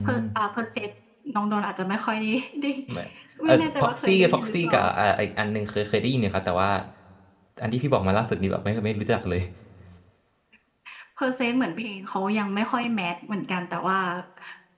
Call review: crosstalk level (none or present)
present